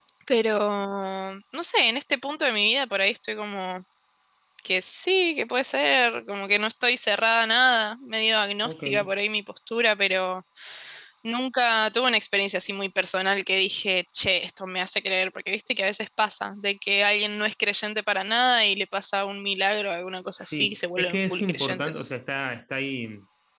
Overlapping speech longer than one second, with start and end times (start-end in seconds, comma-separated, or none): 20.4-22.0